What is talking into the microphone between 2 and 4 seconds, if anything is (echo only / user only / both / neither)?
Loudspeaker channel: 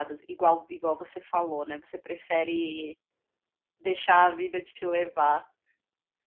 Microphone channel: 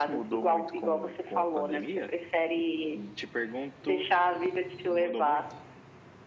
both